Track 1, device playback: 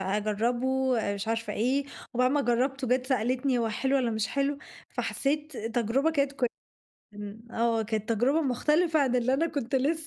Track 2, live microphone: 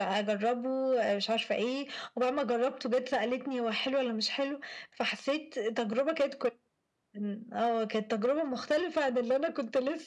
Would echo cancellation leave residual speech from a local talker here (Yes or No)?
No